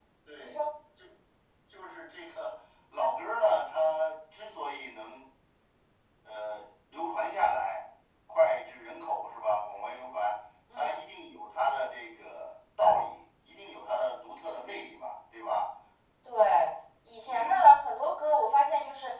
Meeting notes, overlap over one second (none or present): none